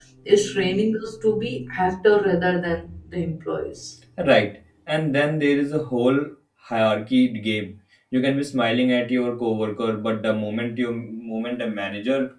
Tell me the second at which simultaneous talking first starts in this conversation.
none

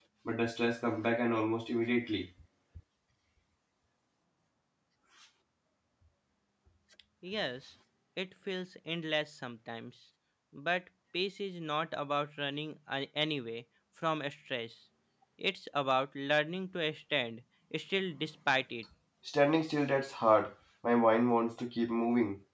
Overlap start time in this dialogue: none

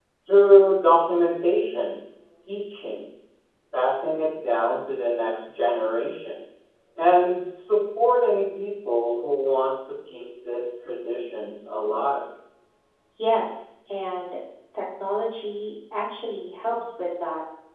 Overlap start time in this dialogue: none

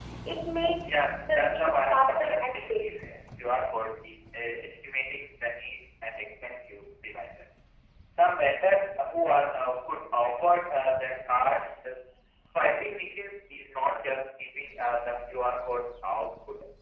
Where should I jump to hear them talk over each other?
0.7 s

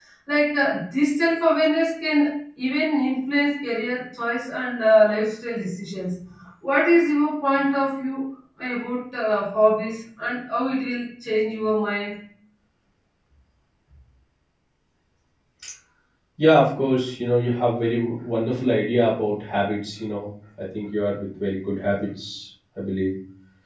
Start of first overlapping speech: none

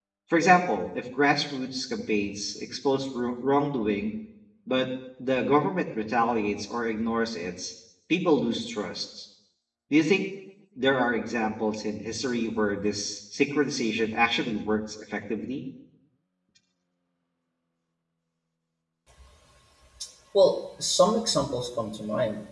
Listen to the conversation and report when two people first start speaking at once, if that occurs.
none

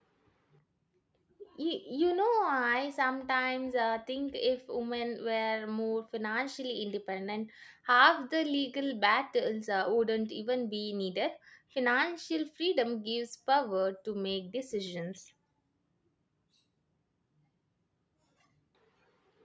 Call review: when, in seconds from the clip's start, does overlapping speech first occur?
none

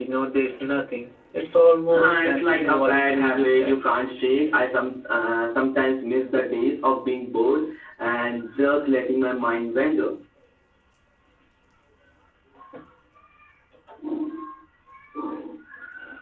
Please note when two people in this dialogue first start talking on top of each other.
1.9 s

